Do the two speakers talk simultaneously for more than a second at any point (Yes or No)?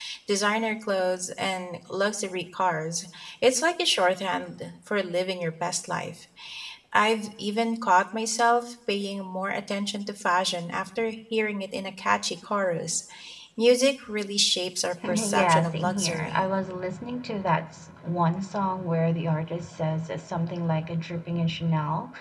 Yes